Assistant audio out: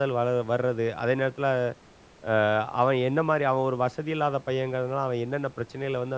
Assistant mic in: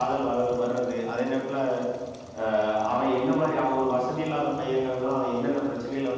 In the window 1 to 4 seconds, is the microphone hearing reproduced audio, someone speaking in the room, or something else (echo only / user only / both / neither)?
echo only